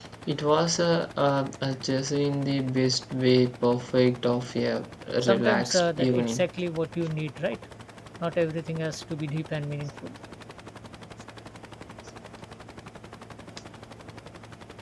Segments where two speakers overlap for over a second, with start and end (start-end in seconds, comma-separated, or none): 5.2-6.4